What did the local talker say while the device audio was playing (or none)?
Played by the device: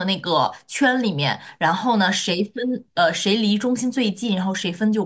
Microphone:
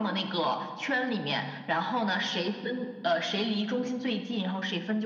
none